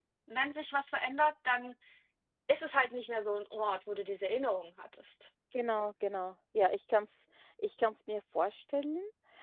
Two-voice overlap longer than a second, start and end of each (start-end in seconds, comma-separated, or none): none